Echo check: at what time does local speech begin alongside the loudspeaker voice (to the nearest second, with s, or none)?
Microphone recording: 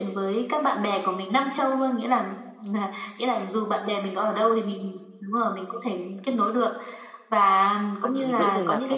8 s